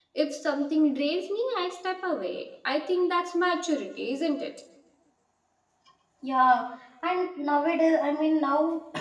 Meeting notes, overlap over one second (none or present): none